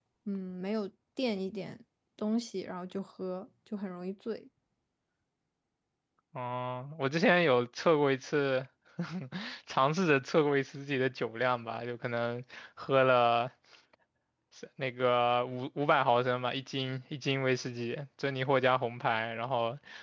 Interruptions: none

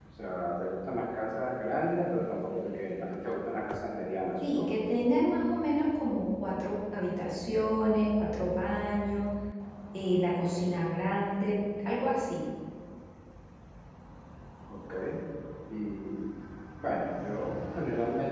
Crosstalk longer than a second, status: none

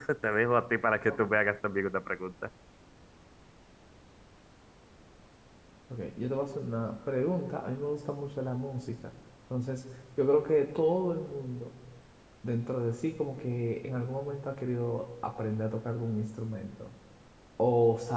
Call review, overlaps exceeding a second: none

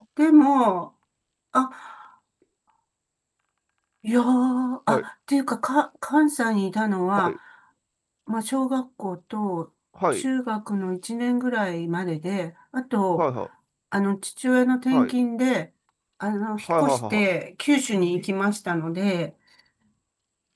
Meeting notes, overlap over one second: none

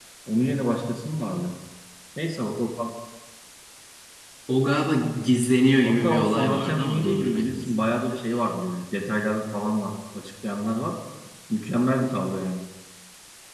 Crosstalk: present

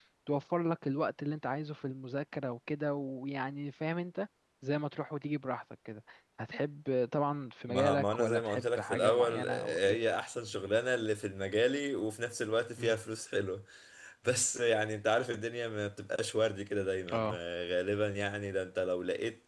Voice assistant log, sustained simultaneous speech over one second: present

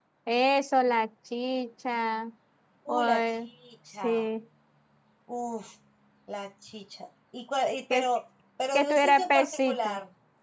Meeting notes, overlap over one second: present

